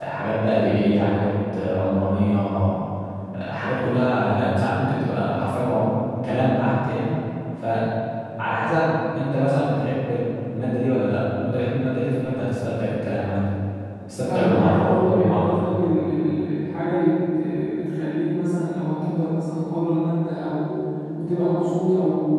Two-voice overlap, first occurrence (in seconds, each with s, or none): 14.3 s